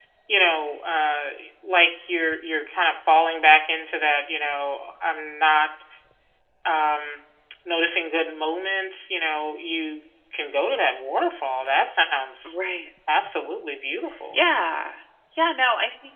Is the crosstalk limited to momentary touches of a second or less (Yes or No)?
Yes